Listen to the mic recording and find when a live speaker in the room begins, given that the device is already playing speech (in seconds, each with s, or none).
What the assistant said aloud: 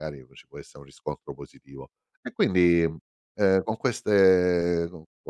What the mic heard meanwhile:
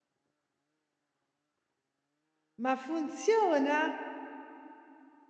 2.6 s